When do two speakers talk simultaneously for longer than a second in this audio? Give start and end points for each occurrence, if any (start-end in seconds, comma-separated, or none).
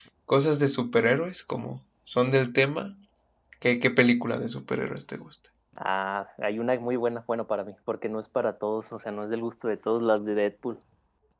none